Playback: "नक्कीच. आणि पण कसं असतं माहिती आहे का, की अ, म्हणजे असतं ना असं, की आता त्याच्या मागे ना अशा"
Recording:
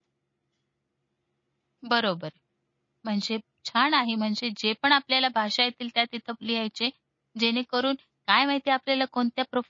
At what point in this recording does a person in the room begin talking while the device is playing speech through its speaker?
1.9 s

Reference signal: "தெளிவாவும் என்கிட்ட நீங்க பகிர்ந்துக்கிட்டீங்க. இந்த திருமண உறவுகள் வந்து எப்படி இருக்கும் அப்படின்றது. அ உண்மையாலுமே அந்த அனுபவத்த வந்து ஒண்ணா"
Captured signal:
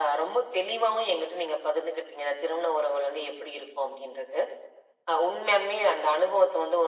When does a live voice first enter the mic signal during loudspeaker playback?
none

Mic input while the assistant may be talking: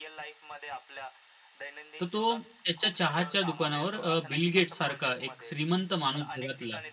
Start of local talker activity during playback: 2.0 s

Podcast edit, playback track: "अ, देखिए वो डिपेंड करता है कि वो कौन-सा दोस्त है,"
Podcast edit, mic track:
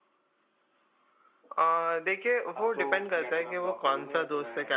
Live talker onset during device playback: 2.5 s

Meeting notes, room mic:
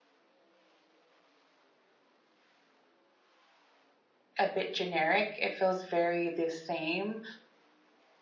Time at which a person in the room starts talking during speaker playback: 4.4 s

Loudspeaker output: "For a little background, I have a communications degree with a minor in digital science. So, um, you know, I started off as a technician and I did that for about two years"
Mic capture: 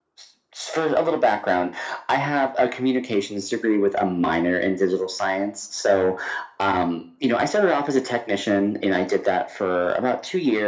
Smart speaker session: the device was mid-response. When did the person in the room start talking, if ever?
none

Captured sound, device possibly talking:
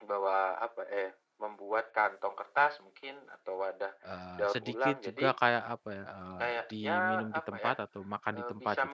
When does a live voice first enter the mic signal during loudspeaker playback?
4.0 s

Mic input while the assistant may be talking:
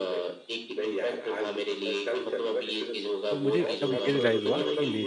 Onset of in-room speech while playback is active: 3.3 s

